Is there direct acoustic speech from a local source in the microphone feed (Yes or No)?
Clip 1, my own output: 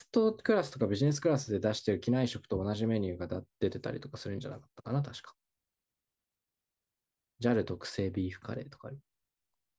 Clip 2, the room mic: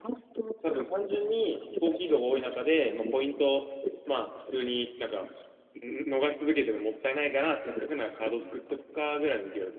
Yes